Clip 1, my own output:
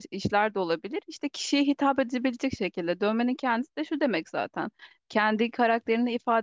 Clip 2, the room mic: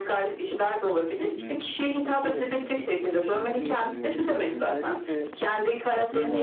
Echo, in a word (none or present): present